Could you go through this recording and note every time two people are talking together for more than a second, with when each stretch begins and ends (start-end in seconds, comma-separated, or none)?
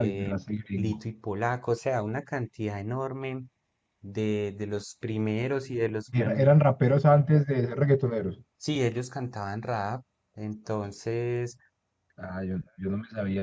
none